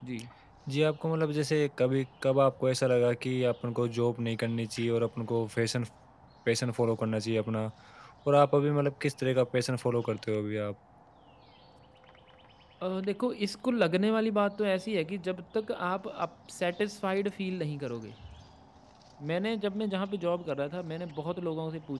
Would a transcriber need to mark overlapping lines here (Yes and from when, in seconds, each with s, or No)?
No